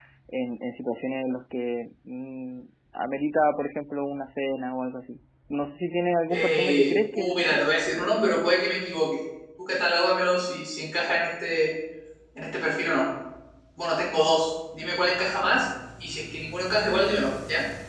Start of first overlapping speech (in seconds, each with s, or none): 6.3 s